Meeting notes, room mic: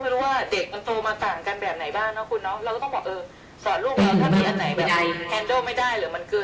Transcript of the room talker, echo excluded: ไปถึงแบบใด

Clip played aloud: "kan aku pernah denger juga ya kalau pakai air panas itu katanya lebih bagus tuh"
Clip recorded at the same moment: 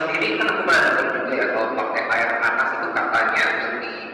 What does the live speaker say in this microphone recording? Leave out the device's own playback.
none

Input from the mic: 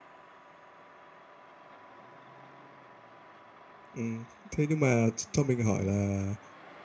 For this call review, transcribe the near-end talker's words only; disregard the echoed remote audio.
Ừm. Thế nhưng mà ch cho mình hỏi là

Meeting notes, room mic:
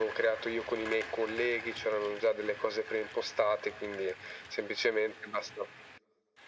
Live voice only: none

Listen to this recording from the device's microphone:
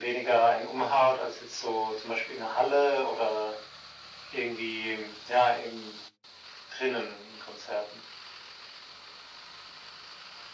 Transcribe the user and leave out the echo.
none

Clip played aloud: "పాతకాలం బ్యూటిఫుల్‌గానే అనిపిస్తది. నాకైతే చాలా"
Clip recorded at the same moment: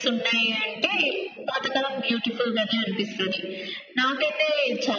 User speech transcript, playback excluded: none

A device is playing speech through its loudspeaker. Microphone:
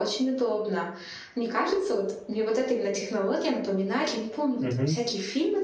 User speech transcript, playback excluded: Мгм.

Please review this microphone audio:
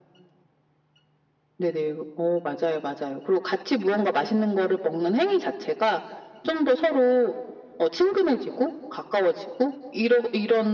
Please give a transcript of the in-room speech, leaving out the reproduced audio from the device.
none

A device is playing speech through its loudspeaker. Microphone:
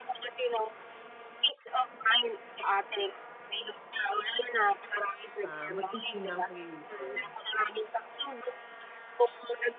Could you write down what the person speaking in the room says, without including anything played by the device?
ah, masinsinang pag-iisip.

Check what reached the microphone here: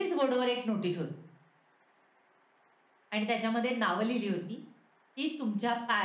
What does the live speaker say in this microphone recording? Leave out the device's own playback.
none

